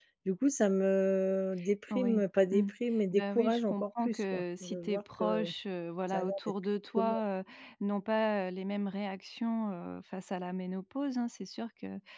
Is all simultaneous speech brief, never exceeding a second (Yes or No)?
No